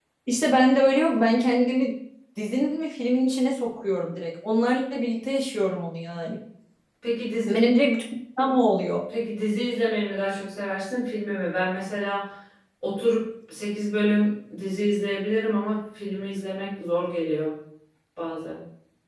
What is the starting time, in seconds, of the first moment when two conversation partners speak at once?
none

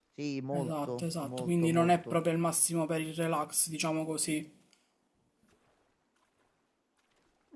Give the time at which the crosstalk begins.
0.5 s

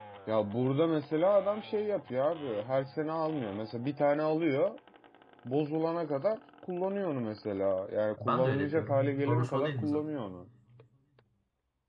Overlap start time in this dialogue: 8.2 s

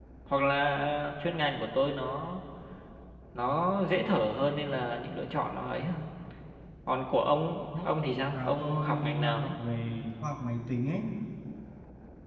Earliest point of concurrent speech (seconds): 8.3 s

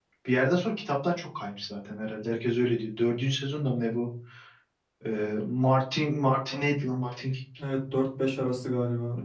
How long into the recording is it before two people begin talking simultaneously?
none

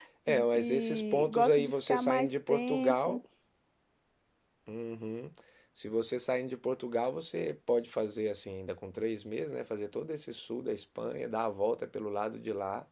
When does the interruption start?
0.5 s

